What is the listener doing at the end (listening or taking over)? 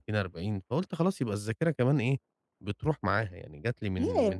taking over